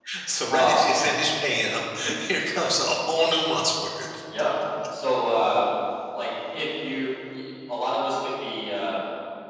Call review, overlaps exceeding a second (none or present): none